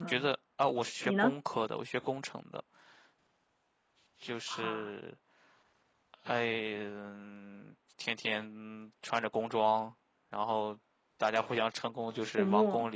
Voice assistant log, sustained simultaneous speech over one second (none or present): none